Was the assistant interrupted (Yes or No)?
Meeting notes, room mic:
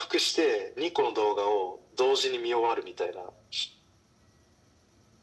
No